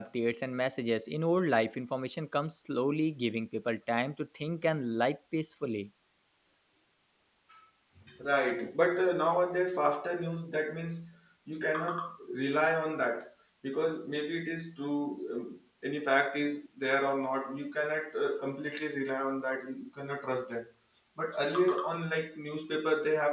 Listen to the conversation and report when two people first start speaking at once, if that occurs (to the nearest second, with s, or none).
none